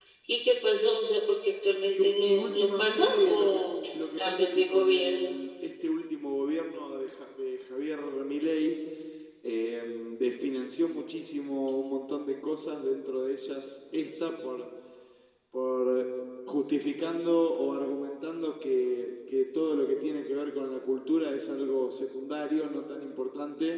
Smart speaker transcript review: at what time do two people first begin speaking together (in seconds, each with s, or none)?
1.9 s